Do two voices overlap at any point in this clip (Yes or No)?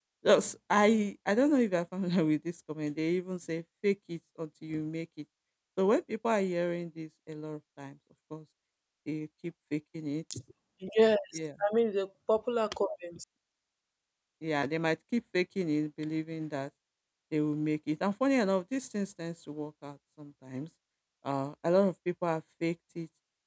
No